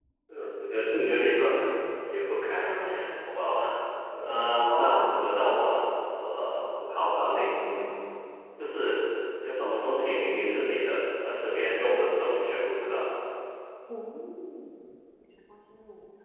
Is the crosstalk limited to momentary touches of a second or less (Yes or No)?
Yes